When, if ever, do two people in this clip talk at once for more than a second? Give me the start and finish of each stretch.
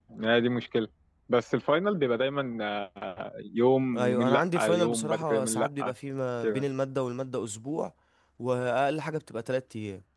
3.9-5.8

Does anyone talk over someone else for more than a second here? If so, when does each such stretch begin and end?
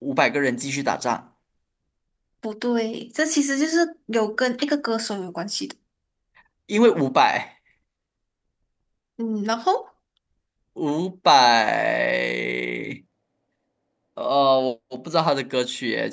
none

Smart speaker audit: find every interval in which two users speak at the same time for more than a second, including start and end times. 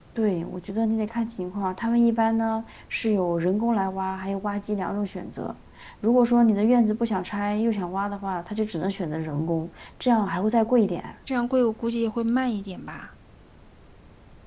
none

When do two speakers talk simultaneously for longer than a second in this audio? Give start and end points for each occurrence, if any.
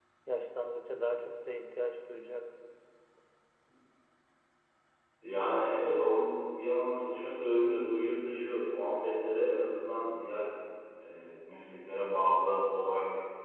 none

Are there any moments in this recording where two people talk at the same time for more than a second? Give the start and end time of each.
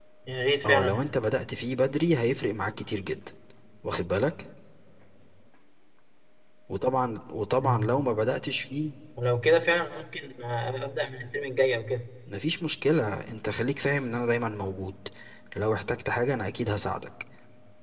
none

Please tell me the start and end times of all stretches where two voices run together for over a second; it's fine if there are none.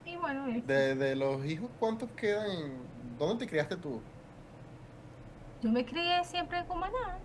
none

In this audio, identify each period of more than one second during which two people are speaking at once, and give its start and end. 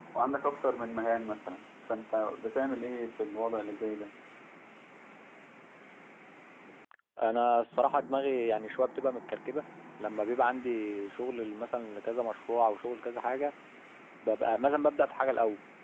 none

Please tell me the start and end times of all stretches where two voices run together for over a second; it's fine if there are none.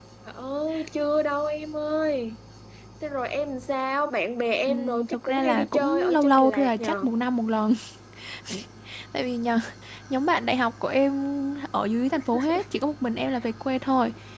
4.7-7.0

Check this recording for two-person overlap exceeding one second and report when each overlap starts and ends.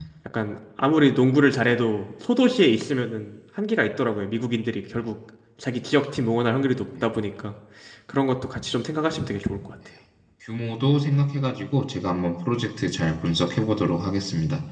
none

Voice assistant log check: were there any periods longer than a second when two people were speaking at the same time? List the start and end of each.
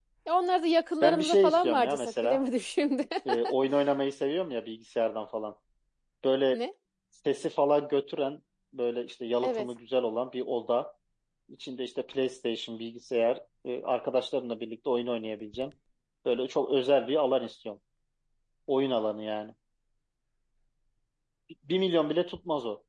1.0-2.4

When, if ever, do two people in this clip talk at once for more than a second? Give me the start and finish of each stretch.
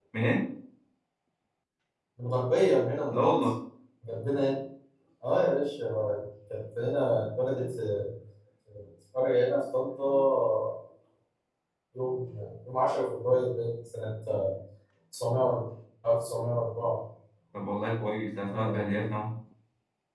none

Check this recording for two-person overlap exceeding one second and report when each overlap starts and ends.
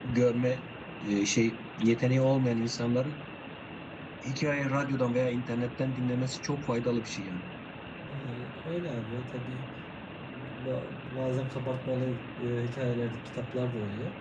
none

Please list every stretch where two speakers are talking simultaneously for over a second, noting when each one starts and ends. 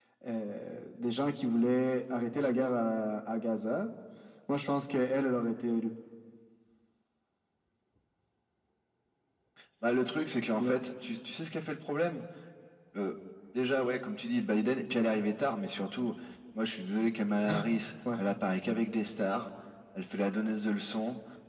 none

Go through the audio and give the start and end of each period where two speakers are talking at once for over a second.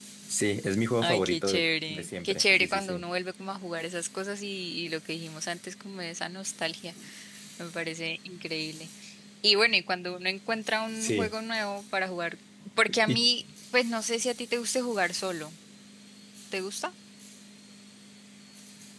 1.0-3.0

